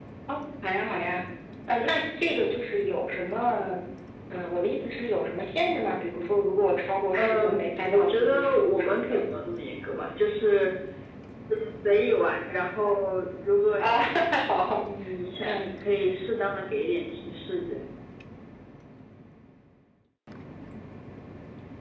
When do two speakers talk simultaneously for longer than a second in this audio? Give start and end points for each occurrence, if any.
7.9-9.3

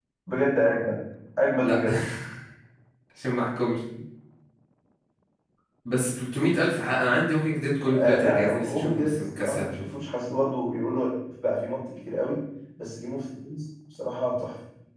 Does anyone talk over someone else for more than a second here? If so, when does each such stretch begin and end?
7.9-9.7

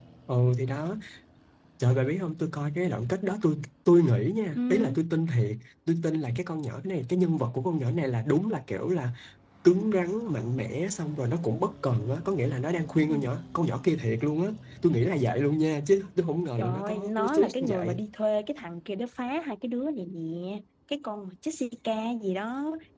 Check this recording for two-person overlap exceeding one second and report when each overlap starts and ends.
16.6-18.0

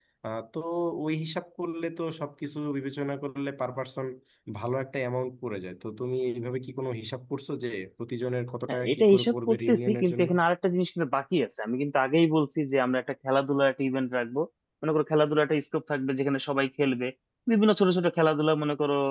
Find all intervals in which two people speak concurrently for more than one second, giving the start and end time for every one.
8.7-10.3

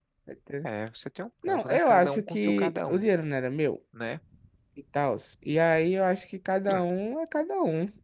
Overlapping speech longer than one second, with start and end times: 1.5-3.1

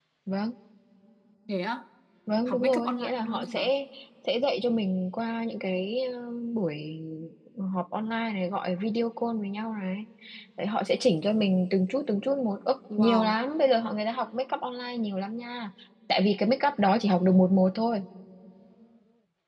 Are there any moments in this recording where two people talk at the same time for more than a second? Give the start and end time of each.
2.5-3.7

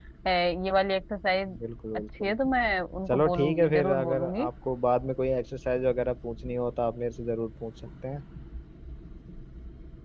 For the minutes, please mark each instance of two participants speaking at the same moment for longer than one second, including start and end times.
3.1-4.5

